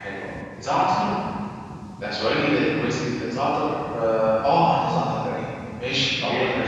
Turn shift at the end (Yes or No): Yes